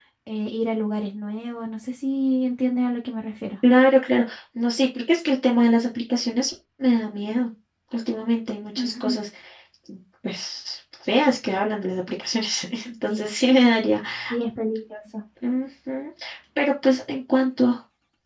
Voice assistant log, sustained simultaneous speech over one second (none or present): none